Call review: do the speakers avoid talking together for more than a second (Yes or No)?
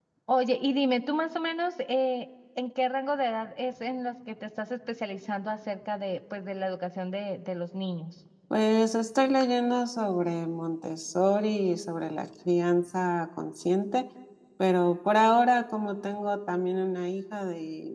Yes